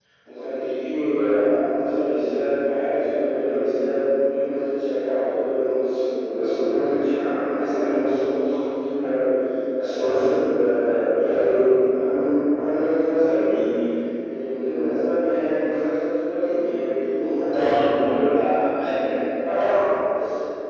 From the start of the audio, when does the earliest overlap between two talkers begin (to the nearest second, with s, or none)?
none